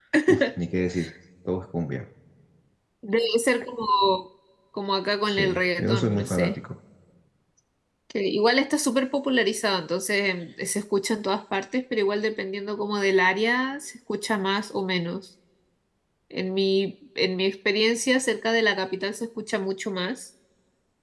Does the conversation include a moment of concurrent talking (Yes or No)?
Yes